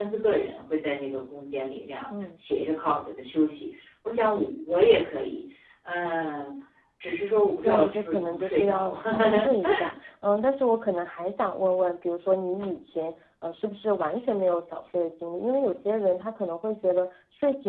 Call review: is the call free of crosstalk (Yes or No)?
No